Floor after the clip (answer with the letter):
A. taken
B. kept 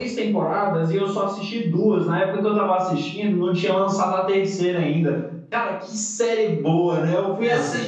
B